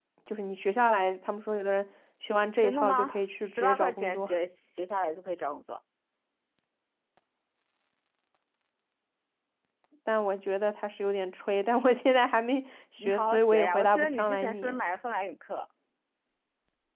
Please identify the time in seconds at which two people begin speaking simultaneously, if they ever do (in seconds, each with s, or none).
2.6 s